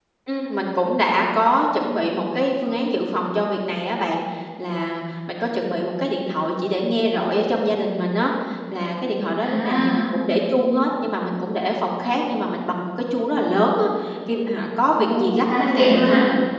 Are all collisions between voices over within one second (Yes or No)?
No